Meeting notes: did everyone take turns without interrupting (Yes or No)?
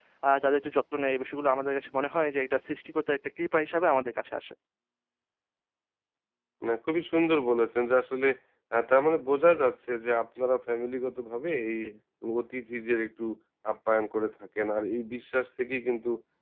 Yes